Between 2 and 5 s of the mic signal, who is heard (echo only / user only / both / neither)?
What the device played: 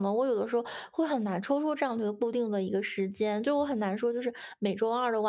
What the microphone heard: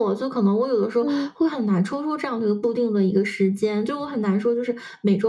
echo only